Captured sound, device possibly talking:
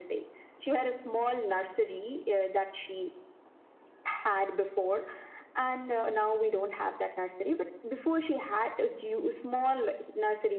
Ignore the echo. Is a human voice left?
No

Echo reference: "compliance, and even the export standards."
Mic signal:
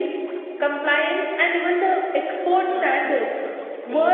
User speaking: Yes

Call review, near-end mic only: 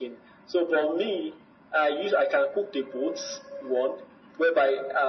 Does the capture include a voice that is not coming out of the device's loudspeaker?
No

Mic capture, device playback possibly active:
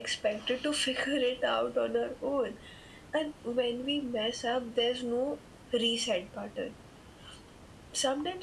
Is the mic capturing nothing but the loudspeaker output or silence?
Yes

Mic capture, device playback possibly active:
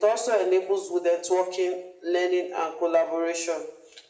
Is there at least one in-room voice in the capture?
No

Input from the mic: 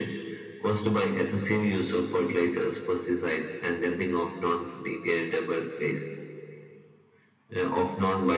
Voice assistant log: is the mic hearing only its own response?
Yes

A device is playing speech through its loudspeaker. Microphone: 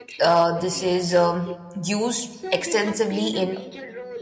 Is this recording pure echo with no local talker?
No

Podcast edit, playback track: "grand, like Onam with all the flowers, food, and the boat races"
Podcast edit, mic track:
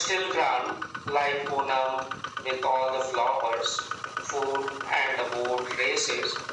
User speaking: No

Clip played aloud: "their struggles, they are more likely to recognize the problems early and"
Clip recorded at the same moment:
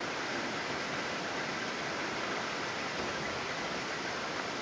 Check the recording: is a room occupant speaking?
No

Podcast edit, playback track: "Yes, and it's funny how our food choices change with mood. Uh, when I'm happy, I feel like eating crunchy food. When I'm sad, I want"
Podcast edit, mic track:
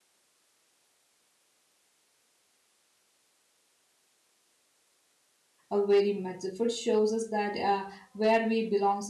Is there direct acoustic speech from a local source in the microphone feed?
Yes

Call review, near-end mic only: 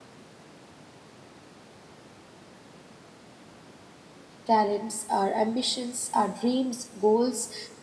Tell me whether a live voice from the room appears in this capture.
Yes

